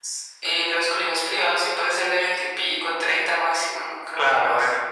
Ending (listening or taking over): taking over